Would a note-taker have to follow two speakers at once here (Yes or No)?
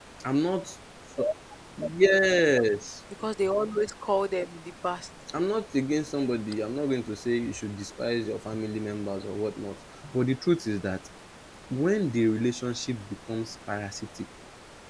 No